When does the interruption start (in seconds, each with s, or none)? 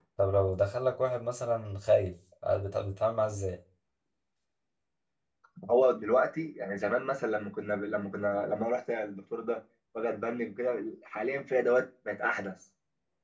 none